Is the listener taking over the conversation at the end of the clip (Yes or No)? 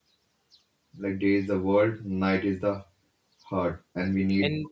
No